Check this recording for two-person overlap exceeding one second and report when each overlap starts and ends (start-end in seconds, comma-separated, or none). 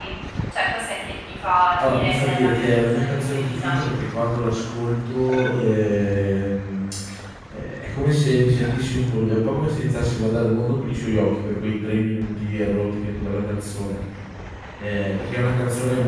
1.8-3.8